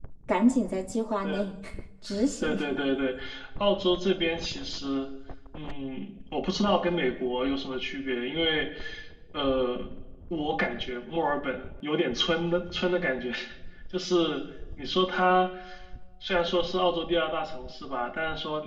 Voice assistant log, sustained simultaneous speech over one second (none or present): none